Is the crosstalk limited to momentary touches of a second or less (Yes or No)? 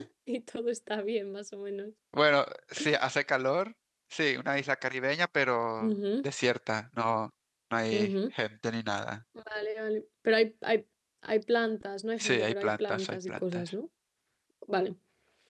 No